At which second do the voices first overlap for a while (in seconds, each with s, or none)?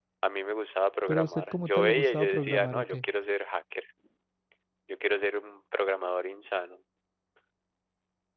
1.1 s